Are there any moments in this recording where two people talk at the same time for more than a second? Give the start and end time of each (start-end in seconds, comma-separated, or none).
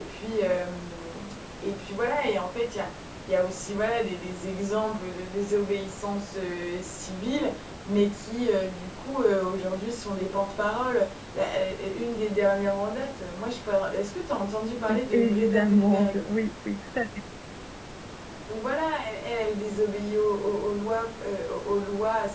14.9-16.2